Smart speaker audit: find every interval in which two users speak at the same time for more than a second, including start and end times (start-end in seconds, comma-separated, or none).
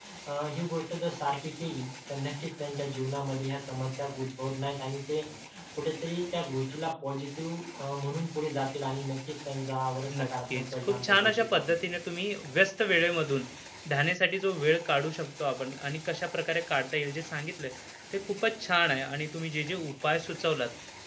10.2-11.7